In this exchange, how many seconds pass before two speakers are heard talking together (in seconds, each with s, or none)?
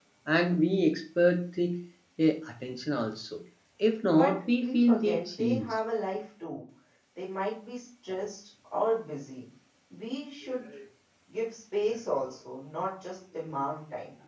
4.0 s